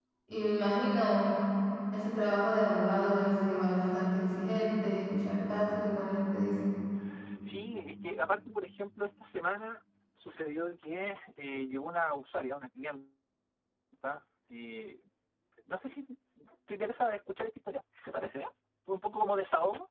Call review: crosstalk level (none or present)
none